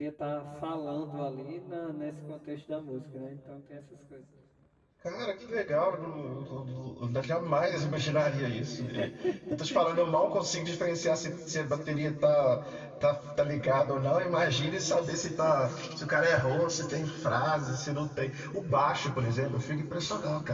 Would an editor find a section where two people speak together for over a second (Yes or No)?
No